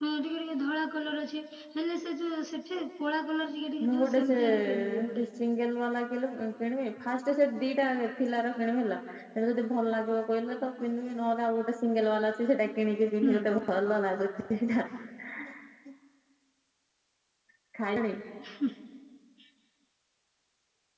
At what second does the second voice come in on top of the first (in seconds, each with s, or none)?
3.8 s